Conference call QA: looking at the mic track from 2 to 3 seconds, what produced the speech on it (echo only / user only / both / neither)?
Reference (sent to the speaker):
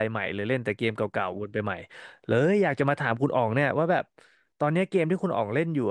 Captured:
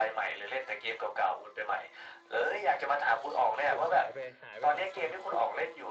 echo only